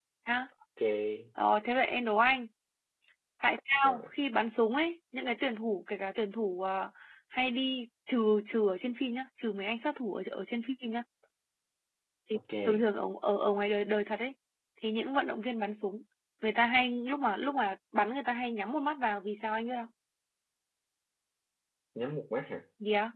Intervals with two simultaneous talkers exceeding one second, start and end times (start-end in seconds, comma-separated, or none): none